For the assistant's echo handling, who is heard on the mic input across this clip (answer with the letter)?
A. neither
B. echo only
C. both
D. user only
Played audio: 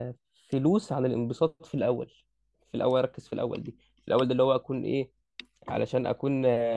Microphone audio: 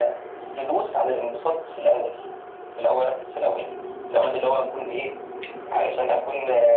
B